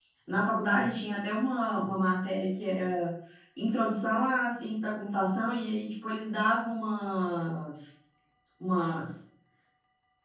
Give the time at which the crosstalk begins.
none

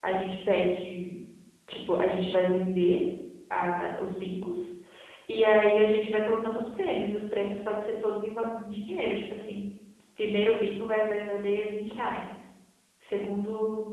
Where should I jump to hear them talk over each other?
none

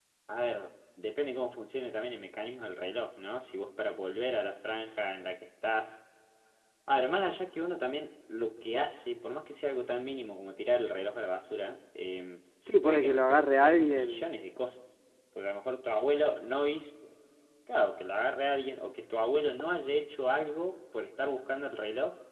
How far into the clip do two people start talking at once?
13 s

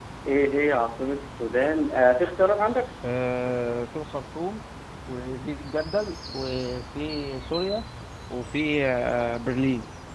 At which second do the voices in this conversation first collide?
none

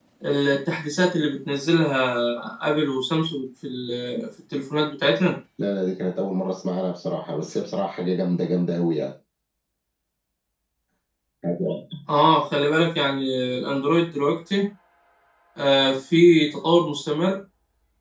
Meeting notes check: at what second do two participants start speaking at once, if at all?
none

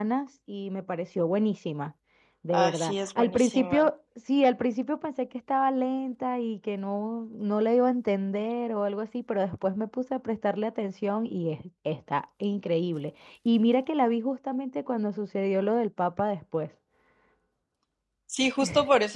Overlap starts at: 3 s

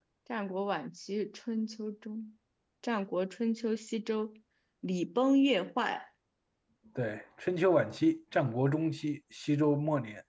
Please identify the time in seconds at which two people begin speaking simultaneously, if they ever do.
none

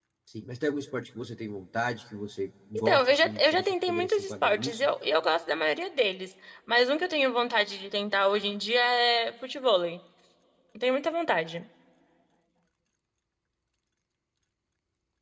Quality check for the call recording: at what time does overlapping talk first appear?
3 s

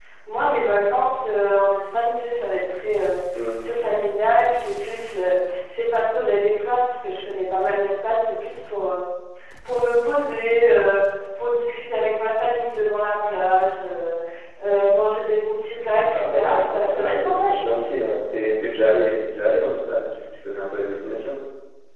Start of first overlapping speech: 16 s

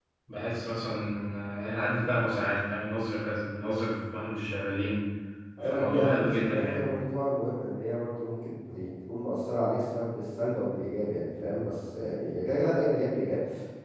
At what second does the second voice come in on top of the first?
6 s

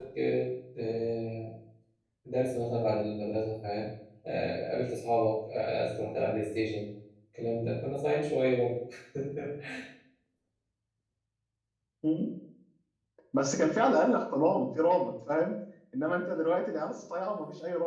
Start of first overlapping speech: none

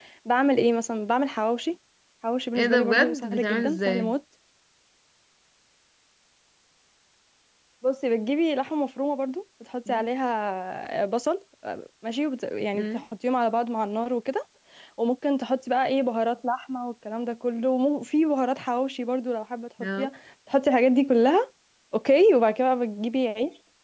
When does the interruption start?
3 s

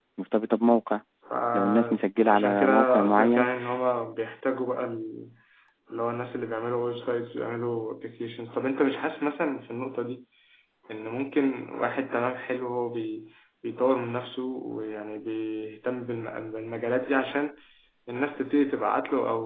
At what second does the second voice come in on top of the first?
2 s

